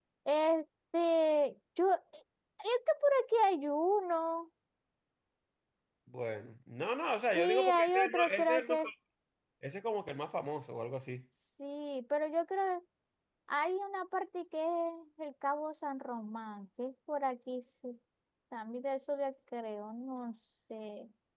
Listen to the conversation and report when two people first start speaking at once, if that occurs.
7.0 s

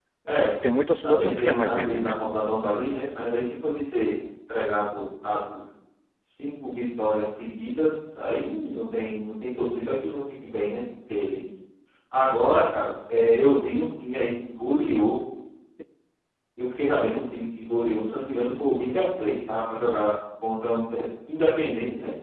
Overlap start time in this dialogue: 1.0 s

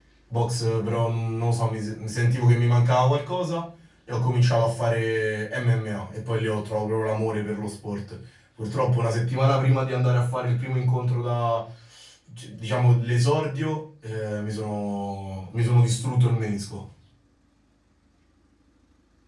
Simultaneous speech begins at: none

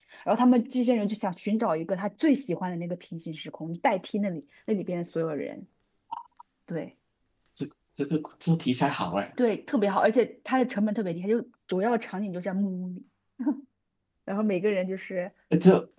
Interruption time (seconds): none

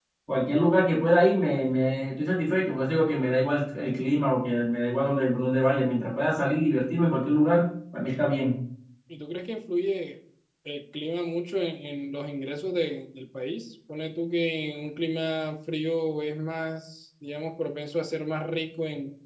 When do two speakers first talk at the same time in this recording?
none

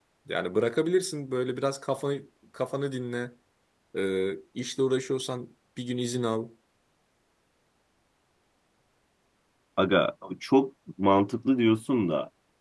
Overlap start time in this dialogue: none

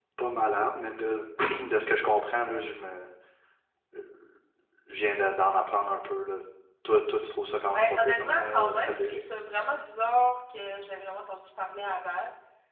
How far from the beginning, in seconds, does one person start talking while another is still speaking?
7.7 s

